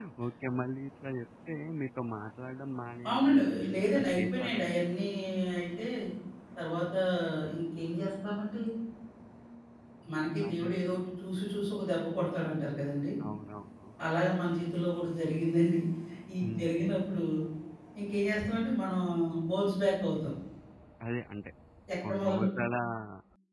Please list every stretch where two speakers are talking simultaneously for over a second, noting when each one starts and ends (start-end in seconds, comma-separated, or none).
3.1-4.9